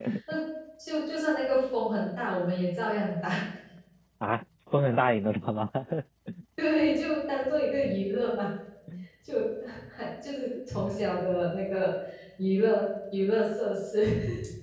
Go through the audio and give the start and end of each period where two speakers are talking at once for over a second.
none

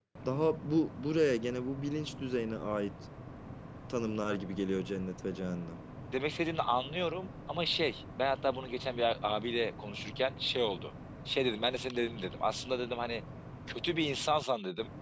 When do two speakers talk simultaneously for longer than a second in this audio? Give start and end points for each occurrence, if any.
none

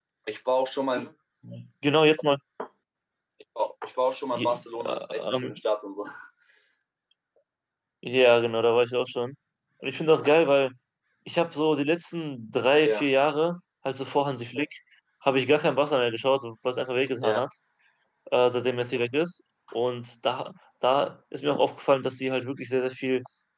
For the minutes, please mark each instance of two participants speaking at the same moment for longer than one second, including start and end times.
4.3-5.6

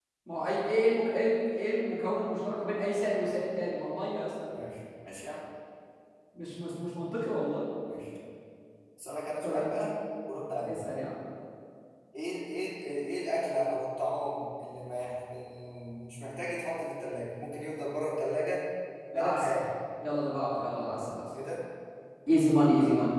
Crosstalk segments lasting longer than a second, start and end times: none

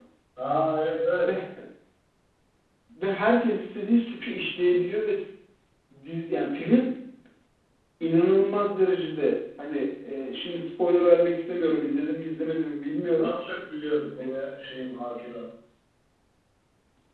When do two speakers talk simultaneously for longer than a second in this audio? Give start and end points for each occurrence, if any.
none

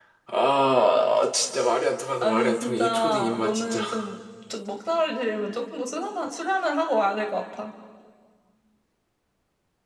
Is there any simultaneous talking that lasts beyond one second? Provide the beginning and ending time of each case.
2.2-3.8

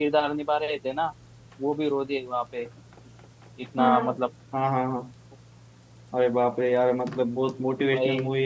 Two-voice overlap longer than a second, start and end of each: none

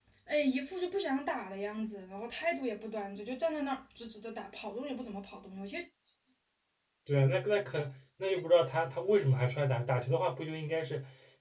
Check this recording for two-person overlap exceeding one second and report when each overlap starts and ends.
none

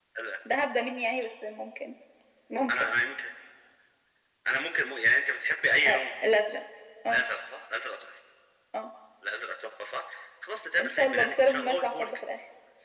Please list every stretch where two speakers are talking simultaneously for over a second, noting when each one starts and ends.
10.8-12.2

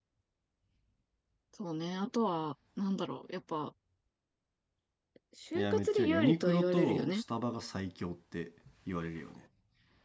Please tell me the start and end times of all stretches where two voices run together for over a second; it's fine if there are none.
5.5-7.2

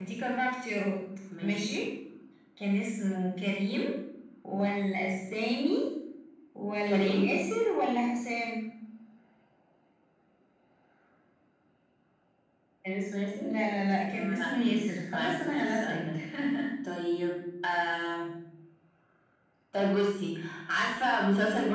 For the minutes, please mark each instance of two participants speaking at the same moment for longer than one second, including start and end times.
14.0-16.2

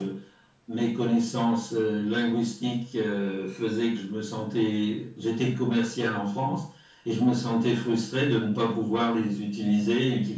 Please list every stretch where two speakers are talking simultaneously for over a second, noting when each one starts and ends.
none

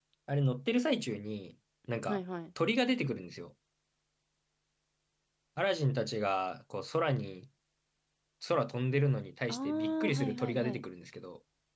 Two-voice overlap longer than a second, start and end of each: 9.5-10.8

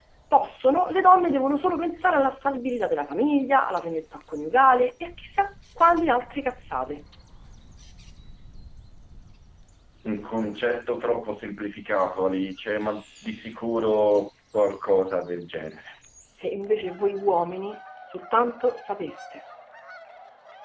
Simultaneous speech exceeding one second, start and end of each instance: none

